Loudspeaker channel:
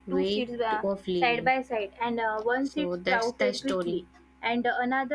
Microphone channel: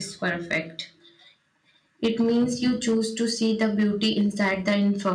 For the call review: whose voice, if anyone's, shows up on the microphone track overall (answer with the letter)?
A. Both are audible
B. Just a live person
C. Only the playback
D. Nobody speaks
B